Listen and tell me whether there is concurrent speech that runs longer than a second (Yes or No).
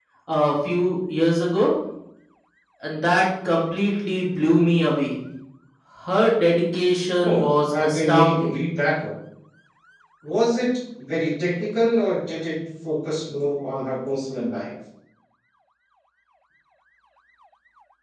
Yes